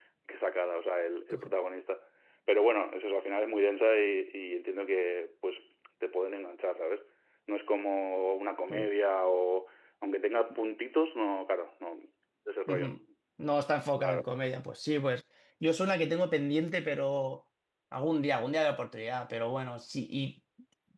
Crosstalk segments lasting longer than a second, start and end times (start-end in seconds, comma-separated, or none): none